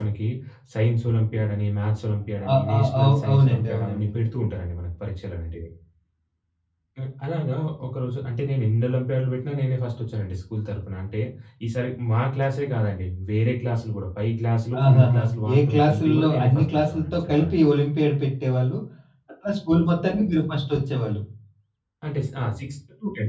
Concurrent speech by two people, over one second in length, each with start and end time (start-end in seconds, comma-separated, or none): 2.5-4.1, 14.8-17.5